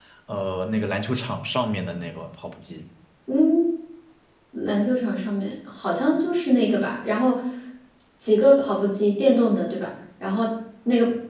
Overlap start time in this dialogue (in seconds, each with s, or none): none